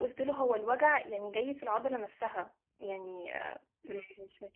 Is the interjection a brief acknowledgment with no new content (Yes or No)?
Yes